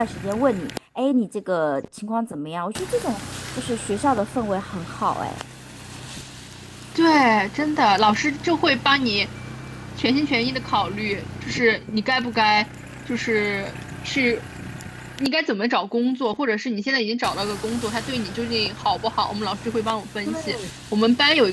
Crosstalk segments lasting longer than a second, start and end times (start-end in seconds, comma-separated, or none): none